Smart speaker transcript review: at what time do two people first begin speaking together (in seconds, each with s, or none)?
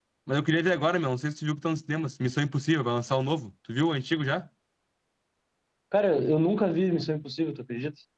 none